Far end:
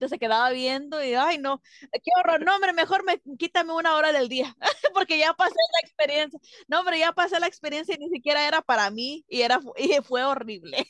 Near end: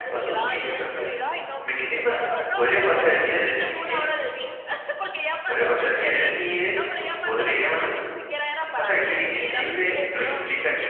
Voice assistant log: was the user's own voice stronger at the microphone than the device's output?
Yes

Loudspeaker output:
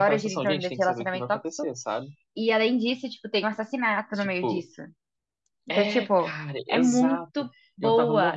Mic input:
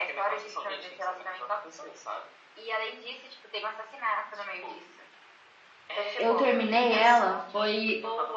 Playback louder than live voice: No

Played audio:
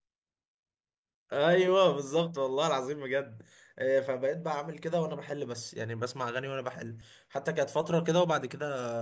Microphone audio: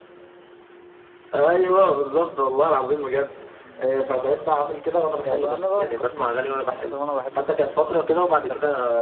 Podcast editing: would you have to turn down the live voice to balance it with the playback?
No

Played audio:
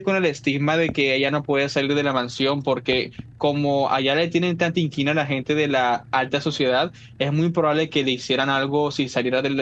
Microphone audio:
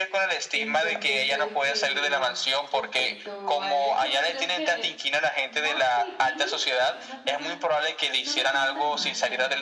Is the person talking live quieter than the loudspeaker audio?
Yes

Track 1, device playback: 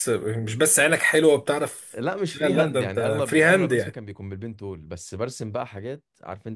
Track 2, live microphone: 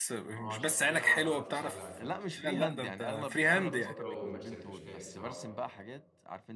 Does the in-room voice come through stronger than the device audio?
No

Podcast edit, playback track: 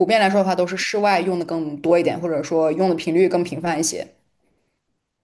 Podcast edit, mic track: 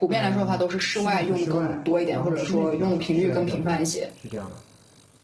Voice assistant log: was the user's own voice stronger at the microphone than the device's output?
No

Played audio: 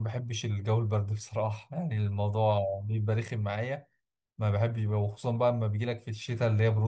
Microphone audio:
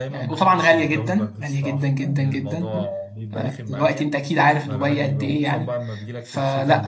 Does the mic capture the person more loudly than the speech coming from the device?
Yes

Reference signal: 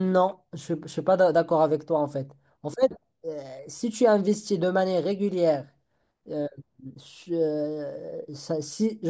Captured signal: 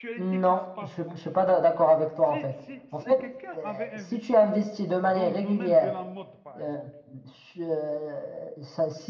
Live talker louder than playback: No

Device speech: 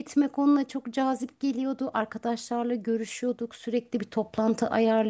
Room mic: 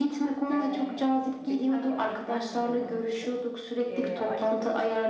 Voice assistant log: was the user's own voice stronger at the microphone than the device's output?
No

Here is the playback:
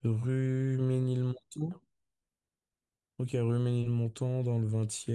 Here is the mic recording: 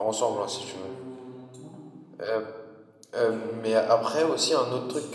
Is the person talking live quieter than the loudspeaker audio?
No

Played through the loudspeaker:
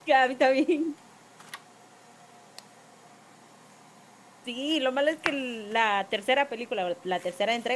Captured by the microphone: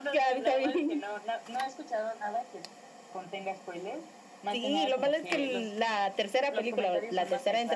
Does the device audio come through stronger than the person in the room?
Yes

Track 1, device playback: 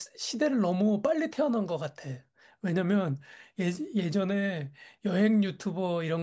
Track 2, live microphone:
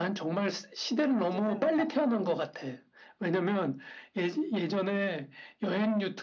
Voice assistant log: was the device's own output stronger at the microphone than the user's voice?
Yes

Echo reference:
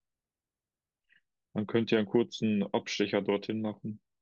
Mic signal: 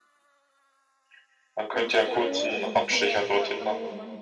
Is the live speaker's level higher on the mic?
No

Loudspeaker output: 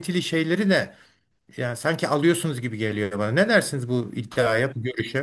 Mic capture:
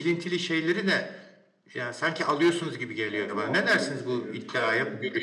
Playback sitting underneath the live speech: No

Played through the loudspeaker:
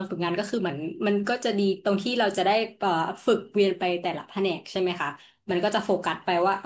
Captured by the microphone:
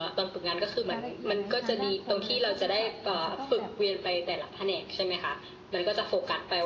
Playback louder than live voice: Yes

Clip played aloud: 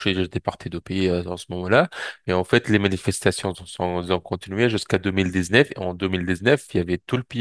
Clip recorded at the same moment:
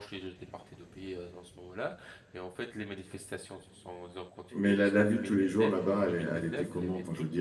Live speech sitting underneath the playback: No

